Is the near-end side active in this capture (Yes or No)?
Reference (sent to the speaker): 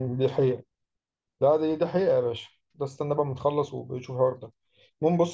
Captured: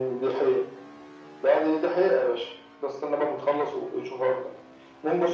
No